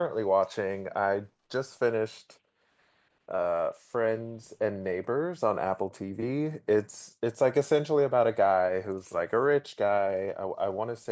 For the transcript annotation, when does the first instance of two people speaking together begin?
none

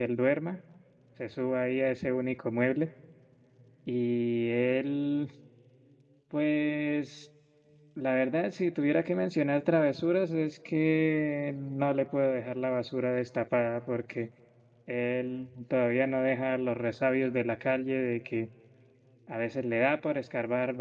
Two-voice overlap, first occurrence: none

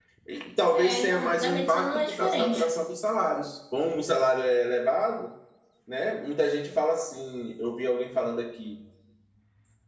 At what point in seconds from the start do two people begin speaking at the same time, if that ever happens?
0.7 s

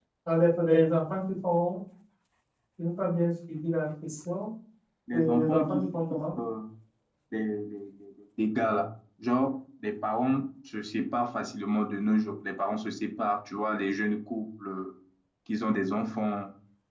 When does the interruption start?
5.1 s

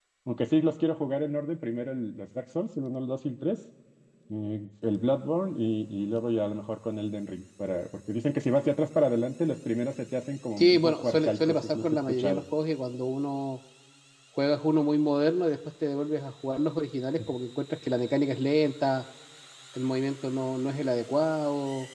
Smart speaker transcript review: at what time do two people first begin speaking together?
10.6 s

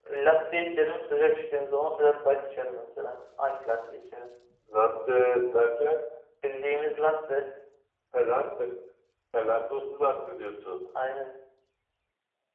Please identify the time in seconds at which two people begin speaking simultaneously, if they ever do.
none

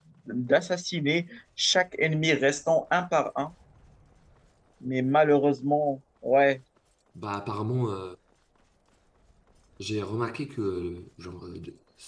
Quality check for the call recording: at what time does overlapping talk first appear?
none

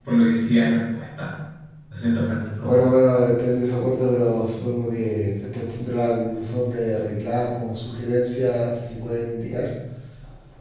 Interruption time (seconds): none

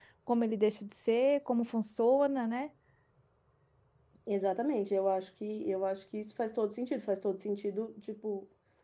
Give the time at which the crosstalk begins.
none

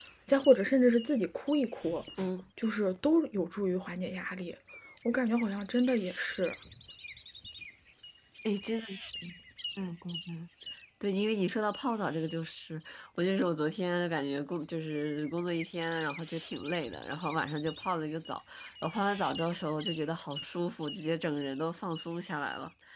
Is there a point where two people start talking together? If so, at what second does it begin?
none

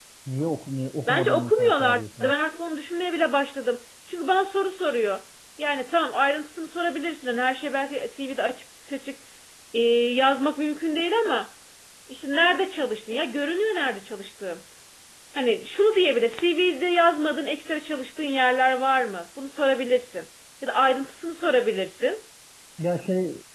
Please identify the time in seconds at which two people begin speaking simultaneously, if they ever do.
1.1 s

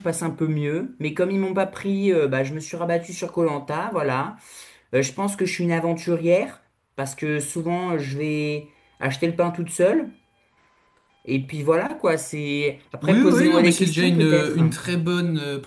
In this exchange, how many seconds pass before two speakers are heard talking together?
13.0 s

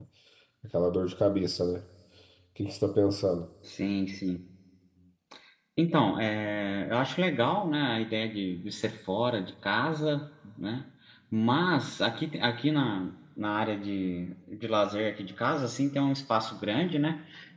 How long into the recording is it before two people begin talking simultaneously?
none

